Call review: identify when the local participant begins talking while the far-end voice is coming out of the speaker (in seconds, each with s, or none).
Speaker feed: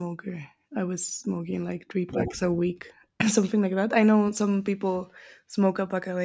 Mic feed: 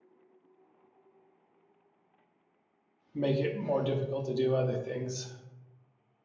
3.1 s